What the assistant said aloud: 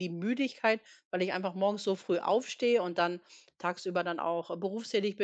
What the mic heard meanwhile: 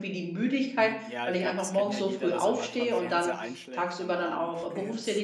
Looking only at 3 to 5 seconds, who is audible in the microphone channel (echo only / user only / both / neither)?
both